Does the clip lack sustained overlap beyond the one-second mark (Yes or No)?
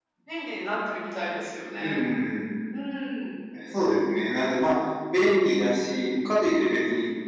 Yes